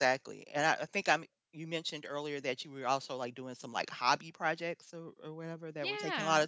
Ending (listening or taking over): taking over